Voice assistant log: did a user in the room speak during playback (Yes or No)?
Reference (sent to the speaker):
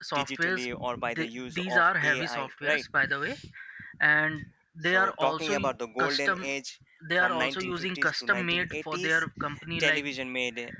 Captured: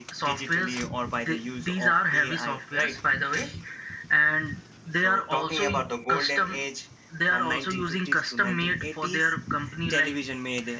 No